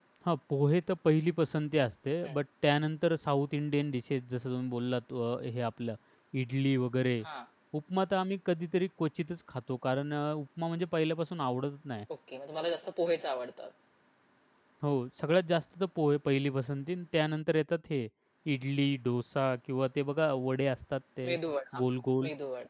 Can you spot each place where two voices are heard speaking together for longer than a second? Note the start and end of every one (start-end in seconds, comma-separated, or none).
none